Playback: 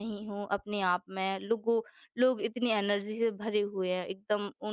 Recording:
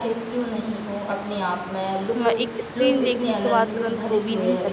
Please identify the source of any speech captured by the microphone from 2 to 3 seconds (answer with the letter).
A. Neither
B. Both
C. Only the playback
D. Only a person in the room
B